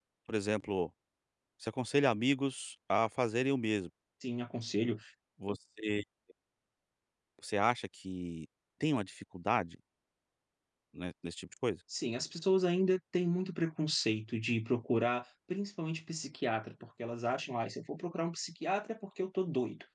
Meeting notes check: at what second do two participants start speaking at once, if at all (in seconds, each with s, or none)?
none